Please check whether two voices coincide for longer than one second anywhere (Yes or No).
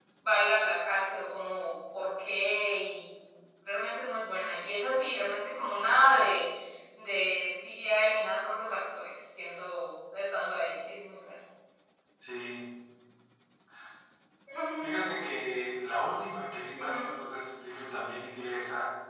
No